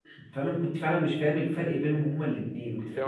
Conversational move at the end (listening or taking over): taking over